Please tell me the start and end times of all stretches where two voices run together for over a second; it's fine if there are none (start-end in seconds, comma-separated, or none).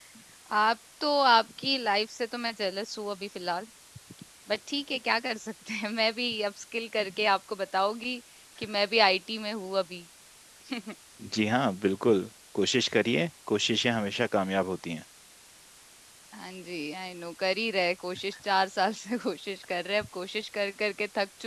none